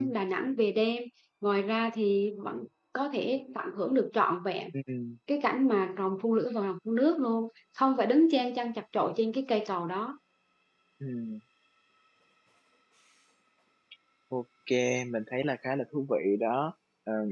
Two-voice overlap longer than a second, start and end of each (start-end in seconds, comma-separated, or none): none